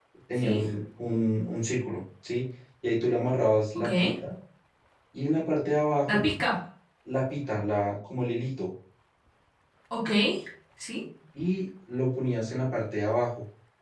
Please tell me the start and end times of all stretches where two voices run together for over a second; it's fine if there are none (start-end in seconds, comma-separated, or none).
none